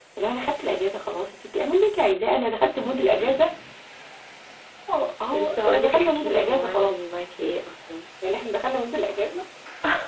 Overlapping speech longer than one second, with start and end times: 5.3-6.9

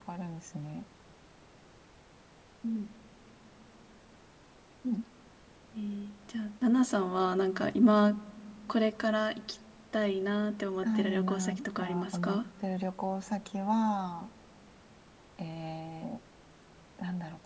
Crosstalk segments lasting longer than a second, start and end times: 10.8-12.4

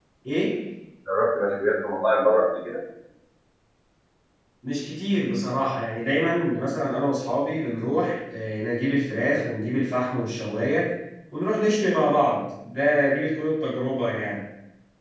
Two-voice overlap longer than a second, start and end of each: none

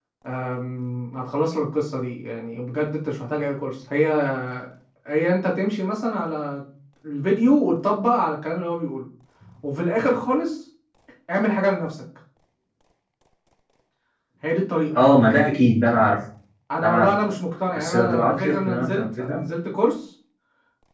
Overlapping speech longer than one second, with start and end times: 17.8-19.4

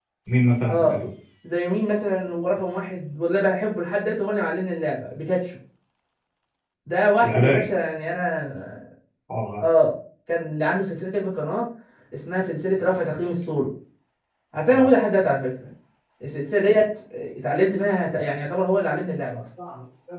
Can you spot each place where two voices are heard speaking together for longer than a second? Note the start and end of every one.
none

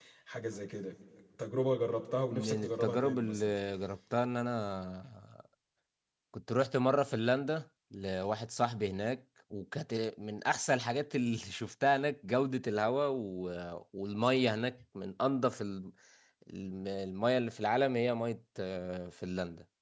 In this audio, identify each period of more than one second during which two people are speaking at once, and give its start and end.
2.3-3.6

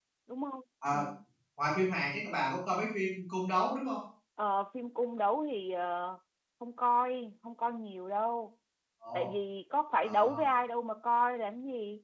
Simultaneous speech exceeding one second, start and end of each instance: none

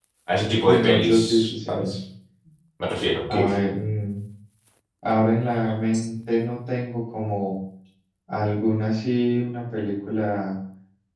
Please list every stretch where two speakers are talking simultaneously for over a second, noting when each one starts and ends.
0.7-1.9

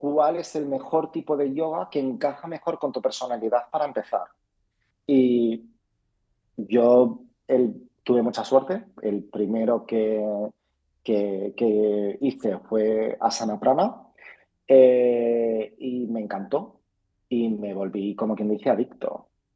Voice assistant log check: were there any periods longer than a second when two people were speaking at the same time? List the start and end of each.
none

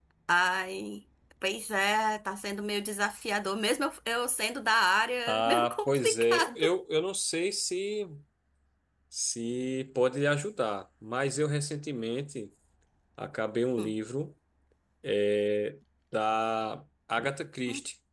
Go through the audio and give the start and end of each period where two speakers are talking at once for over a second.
5.3-6.6

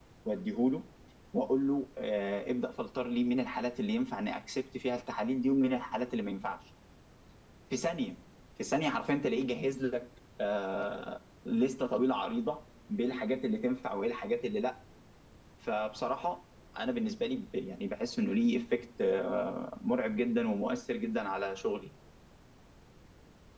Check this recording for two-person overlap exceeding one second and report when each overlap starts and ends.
none

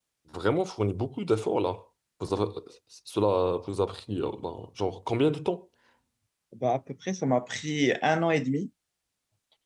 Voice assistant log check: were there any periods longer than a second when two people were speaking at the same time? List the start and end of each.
none

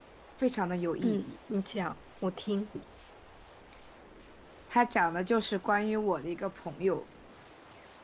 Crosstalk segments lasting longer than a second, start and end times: none

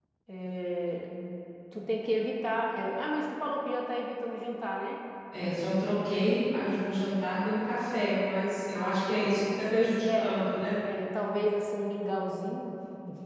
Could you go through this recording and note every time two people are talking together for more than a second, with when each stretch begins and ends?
8.7-10.4

